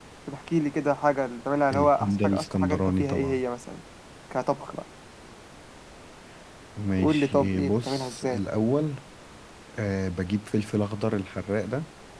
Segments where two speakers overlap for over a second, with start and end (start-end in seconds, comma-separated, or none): 1.7-3.4, 7.0-8.4